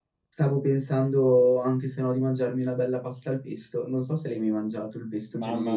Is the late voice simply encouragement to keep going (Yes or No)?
No